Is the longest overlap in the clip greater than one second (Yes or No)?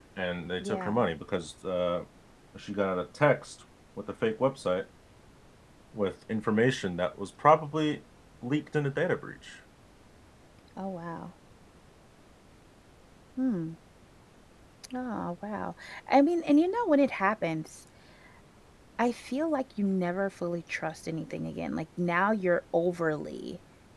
No